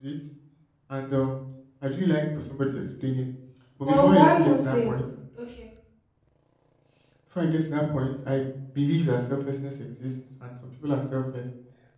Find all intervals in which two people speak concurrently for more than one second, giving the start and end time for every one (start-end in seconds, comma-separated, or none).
3.9-5.1